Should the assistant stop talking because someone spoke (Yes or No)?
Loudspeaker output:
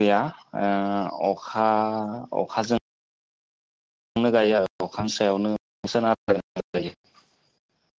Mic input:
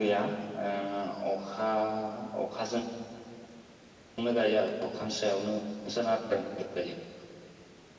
No